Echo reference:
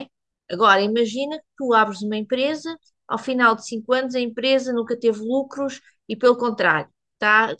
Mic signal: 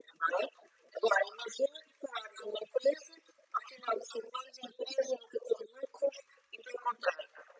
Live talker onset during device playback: none

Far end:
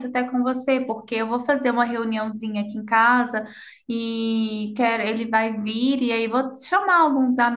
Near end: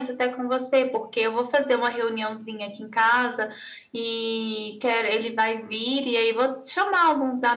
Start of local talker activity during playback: none

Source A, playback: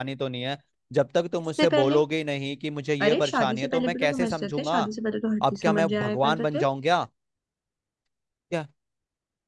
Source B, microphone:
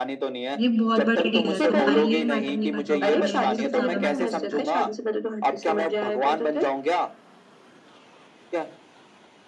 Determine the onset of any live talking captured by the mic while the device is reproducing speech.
0.6 s

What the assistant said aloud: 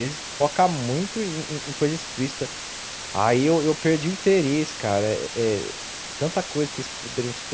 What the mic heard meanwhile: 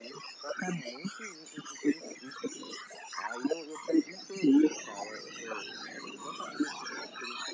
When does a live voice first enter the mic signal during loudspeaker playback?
none

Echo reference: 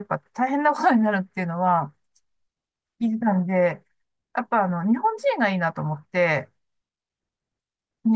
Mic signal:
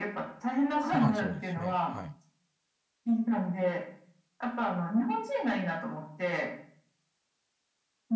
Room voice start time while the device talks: 0.9 s

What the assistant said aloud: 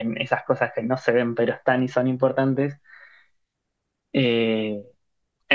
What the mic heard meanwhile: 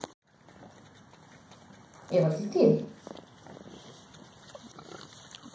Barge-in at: 2.1 s

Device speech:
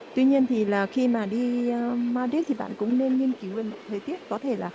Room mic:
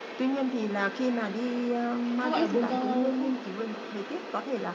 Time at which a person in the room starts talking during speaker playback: 2.2 s

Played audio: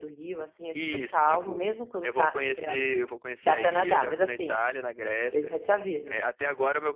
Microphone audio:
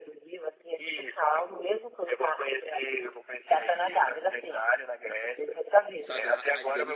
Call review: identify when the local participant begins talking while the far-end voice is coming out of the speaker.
6.0 s

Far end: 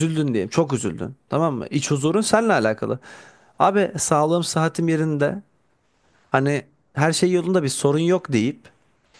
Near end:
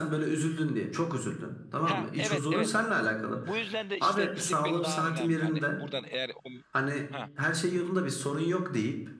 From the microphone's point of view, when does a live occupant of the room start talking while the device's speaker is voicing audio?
1.8 s

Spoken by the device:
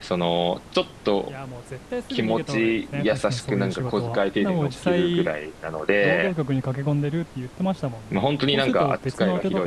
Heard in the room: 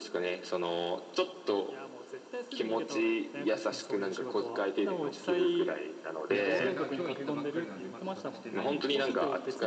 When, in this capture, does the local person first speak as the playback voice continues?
6.3 s

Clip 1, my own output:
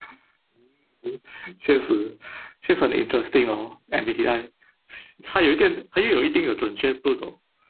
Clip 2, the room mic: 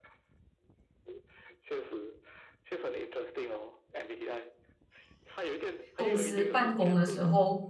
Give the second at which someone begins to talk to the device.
5.9 s

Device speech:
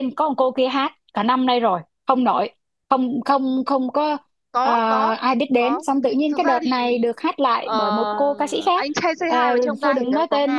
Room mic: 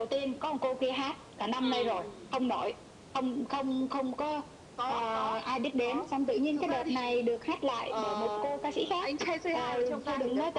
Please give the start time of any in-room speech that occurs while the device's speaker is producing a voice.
1.5 s

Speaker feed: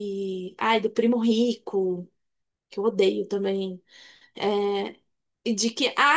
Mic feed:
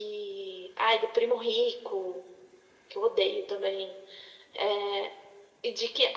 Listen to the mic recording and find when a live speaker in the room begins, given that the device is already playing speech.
none

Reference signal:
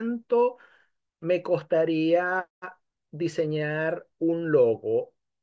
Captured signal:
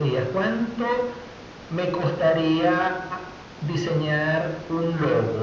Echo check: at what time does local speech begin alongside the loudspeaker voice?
none

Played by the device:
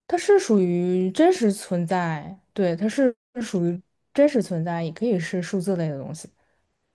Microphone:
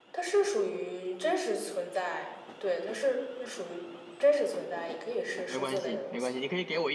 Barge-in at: 5.4 s

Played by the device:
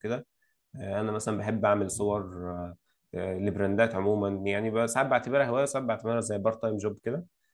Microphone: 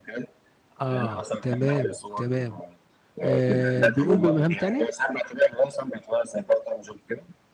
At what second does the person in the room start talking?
0.8 s

